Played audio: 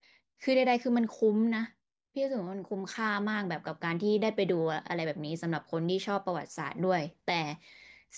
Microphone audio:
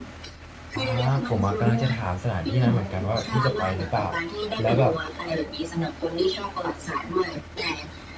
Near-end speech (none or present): present